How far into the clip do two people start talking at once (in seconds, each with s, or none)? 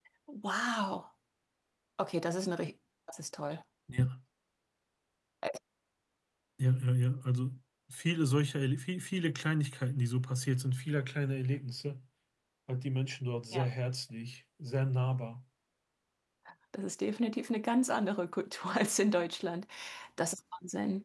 none